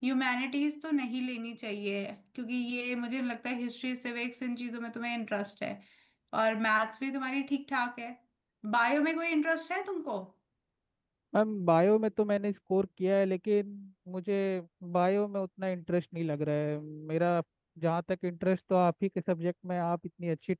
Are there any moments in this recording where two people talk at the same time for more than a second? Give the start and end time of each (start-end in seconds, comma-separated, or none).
none